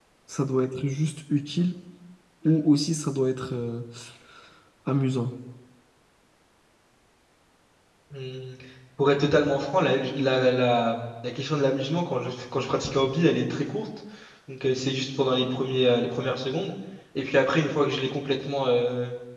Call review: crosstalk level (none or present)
none